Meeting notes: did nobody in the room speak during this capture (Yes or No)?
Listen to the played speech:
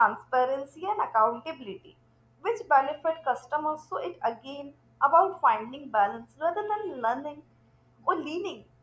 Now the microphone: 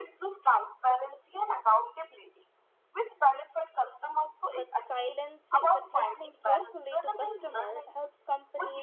No